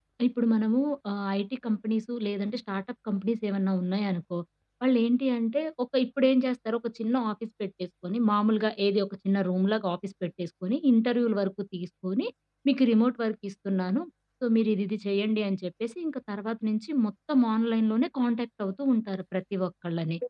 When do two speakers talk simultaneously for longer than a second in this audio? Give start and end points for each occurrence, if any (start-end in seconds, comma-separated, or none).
none